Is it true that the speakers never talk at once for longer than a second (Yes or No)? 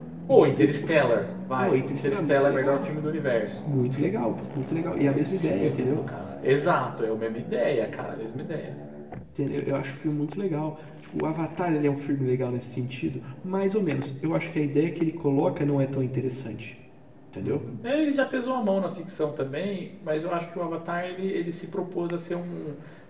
No